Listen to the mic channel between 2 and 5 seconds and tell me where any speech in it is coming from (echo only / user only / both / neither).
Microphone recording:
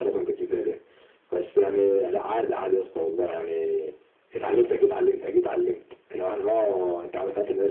echo only